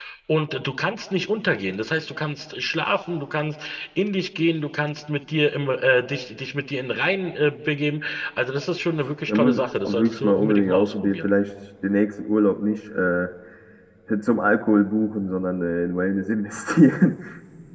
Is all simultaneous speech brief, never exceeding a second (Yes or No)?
No